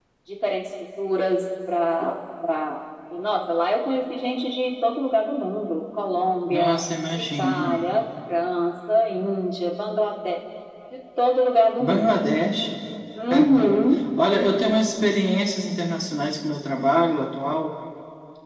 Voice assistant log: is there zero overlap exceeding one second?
No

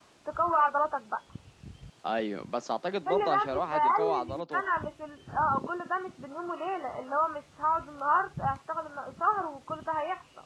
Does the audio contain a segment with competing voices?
Yes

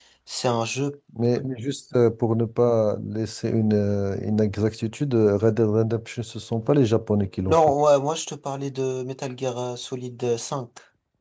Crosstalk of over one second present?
No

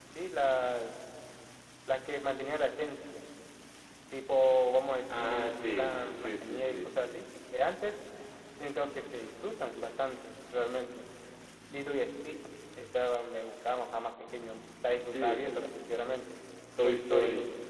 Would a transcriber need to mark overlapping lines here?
Yes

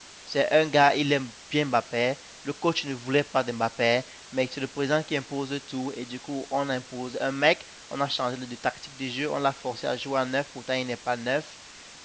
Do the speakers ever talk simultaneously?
No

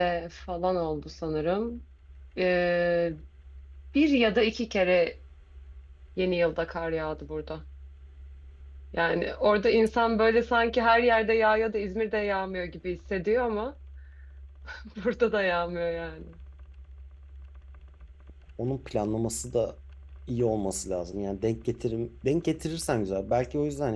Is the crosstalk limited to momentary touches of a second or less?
Yes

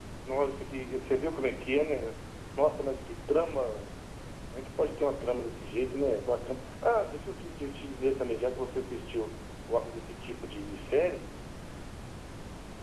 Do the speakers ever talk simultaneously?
No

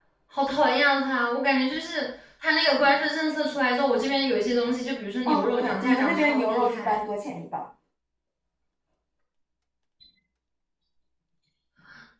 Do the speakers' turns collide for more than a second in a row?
Yes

